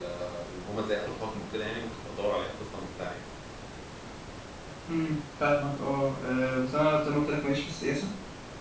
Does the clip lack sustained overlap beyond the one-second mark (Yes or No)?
Yes